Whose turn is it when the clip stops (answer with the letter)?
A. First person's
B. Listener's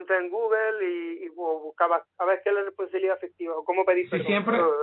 B